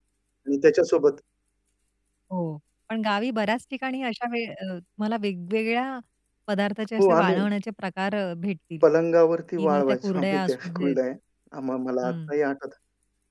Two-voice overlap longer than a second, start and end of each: 9.6-11.0

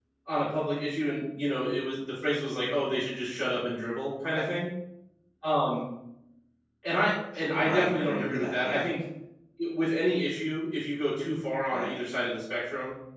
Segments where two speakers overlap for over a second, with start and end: 7.5-8.8

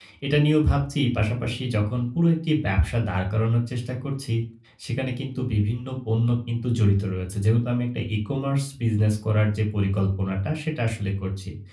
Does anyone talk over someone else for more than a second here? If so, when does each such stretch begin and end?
none

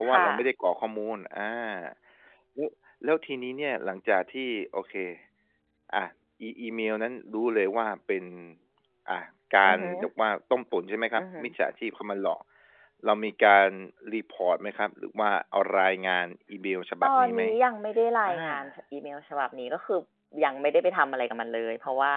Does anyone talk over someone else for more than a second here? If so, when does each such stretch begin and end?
none

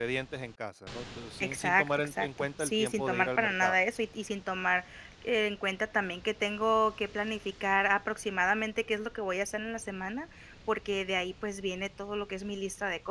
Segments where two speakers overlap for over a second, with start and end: 1.4-3.8

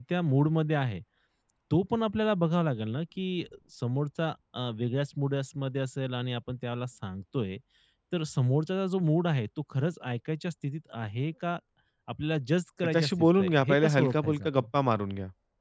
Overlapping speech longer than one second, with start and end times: 12.8-14.7

